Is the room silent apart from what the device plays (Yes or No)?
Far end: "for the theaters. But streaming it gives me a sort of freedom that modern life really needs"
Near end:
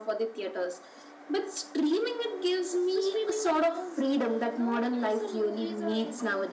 No